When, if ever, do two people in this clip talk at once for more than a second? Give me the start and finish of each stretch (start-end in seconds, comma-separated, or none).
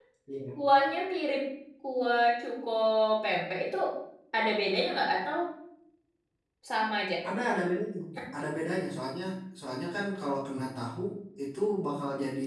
none